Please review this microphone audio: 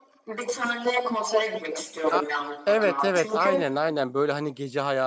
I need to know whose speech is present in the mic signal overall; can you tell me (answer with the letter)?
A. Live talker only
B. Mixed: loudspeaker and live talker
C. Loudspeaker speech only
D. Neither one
B